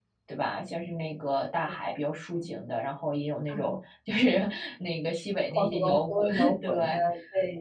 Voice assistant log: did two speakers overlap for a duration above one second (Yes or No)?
Yes